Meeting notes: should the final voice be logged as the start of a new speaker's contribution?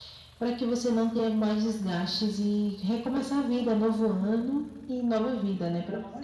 Yes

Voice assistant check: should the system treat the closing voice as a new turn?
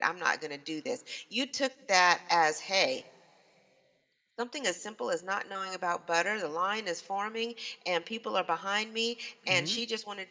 No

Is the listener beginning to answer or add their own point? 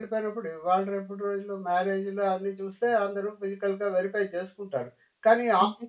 No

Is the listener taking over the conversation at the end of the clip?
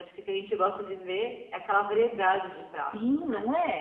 Yes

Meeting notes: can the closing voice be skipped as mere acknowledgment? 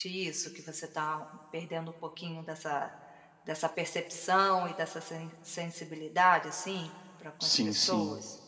No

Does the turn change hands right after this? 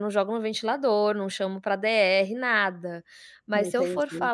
No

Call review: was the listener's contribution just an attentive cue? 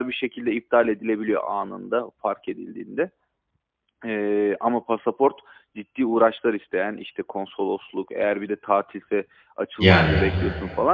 Yes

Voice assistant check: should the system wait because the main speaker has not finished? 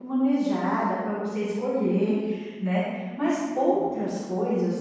Yes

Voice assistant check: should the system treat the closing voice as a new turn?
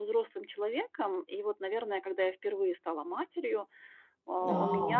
No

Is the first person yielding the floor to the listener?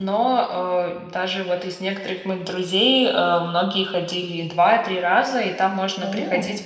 No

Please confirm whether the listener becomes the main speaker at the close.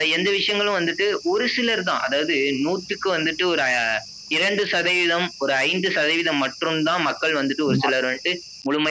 No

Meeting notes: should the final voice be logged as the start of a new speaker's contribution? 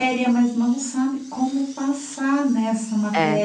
No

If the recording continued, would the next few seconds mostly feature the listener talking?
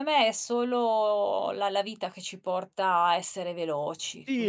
Yes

